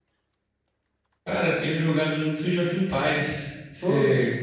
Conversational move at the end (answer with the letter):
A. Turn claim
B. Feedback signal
A